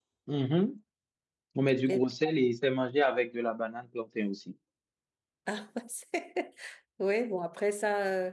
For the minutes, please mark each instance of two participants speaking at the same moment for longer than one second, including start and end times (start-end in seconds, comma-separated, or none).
none